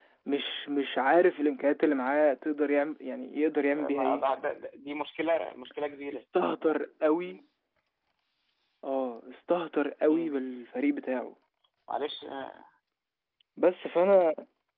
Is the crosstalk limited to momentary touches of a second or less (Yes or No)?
Yes